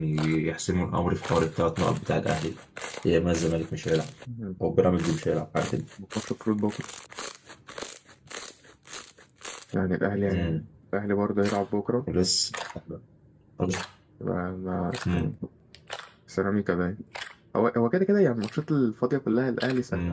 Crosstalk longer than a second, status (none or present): none